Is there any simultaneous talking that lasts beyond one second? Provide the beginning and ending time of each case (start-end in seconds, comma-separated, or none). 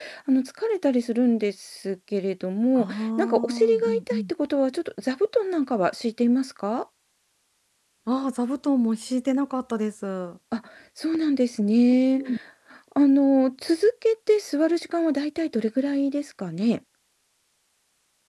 2.8-4.3